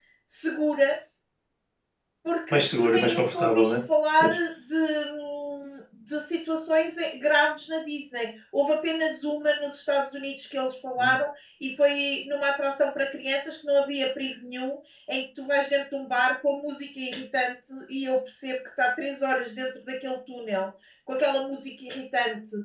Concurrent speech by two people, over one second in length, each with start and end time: 2.5-3.7

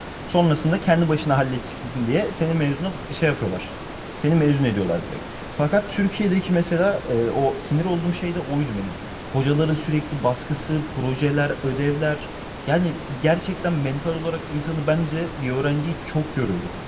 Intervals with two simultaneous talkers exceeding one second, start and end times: none

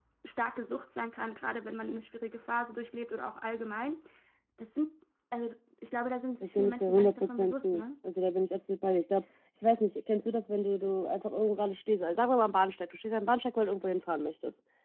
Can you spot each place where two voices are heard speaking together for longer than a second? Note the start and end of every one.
6.4-7.8

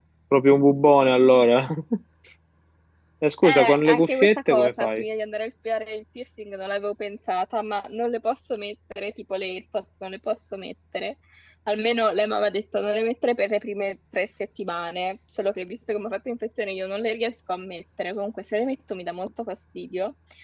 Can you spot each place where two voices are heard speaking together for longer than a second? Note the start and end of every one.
3.4-5.0

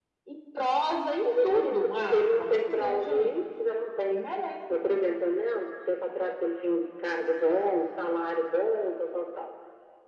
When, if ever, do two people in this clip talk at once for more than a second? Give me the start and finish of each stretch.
1.2-3.4

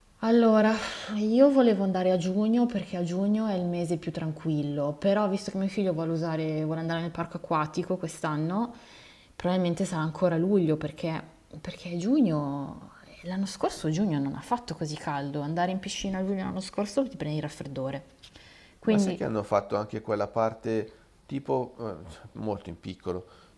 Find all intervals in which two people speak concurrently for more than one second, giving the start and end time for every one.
none

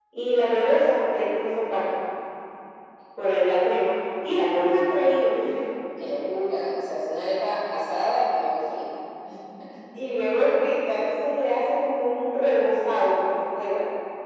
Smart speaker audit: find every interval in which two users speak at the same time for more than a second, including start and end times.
none

